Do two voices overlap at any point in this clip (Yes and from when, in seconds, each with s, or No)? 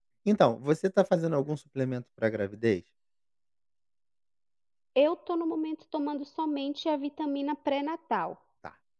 No